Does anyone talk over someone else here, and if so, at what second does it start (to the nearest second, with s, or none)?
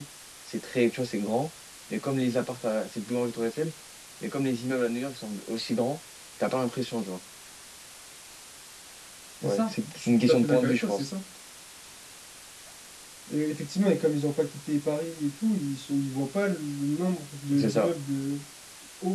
9 s